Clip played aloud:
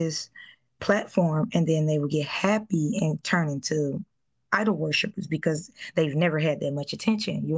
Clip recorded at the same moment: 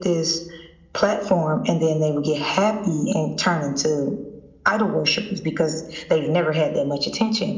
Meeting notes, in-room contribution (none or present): none